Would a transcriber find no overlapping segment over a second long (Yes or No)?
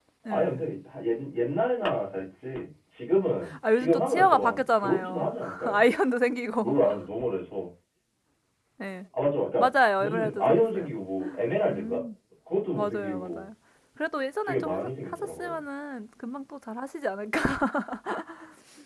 No